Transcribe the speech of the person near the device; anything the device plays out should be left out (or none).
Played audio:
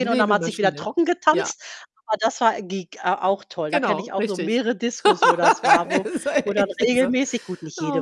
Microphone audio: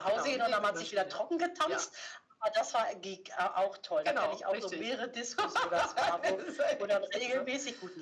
none